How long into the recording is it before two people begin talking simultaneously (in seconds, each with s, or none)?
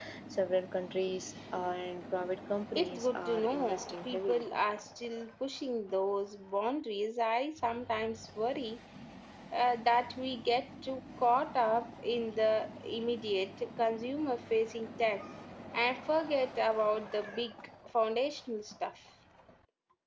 2.7 s